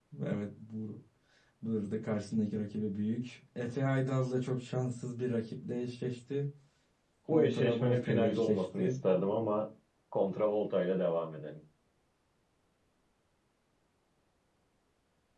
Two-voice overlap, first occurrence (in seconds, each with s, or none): 7.6 s